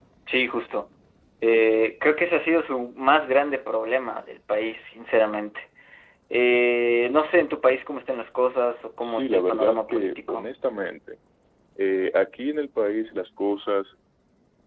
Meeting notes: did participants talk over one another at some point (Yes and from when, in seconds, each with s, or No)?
Yes, from 9.0 s